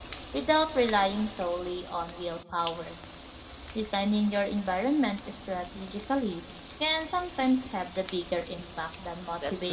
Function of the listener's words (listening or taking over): taking over